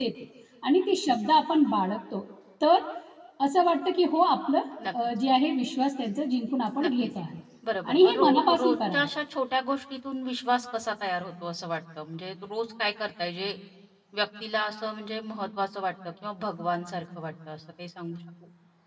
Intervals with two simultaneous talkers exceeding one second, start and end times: 7.9-9.1

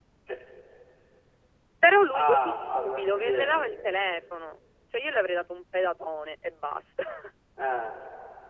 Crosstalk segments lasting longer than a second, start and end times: 2.2-3.7

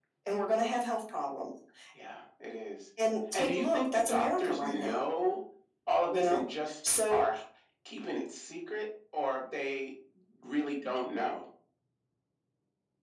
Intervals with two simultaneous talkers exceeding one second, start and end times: 3.3-5.0

